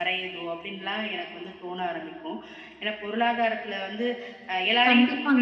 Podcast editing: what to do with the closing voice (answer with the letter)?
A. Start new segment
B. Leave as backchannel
A